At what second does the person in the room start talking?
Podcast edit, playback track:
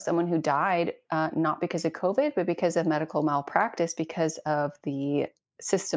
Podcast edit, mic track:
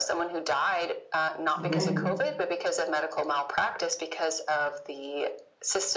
1.6 s

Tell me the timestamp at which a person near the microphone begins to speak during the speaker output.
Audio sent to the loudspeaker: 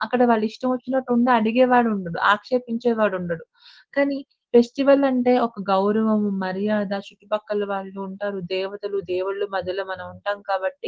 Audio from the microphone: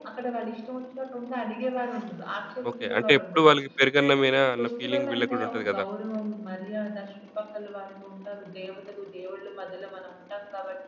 2.7 s

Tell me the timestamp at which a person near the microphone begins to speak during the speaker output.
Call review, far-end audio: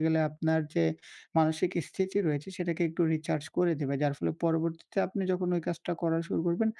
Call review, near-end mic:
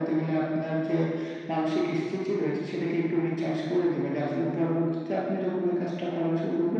none

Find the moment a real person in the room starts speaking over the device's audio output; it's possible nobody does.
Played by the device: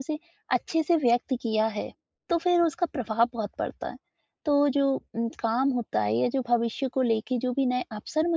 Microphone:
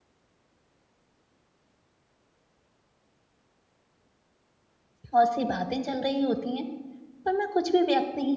5.1 s

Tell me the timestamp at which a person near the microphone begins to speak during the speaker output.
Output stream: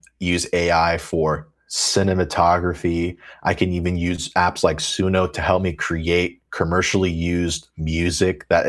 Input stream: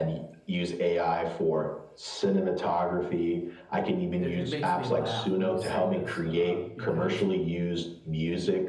4.1 s

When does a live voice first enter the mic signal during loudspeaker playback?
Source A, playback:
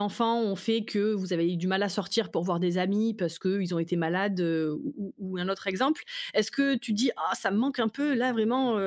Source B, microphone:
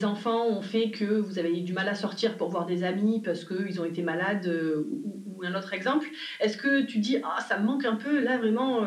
none

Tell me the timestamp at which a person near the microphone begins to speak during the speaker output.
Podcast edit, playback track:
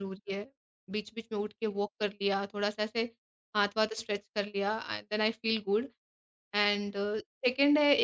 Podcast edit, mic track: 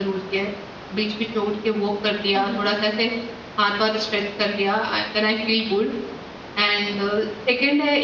2.4 s

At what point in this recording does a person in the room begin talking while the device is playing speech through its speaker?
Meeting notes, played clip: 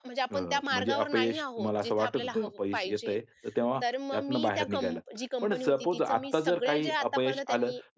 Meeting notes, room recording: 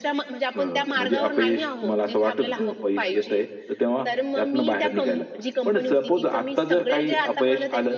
none

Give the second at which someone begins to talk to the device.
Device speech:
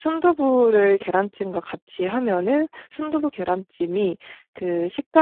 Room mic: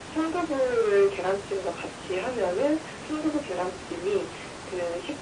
none

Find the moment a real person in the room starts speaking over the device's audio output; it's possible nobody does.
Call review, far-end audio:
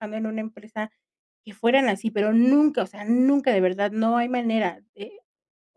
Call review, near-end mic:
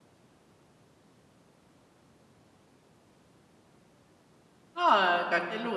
4.7 s

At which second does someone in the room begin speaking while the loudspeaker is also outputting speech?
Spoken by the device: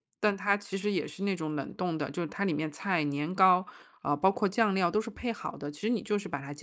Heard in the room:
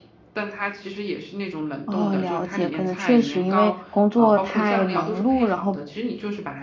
1.8 s

